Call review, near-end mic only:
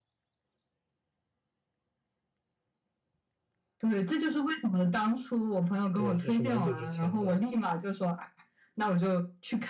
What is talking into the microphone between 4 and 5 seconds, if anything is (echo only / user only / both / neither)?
echo only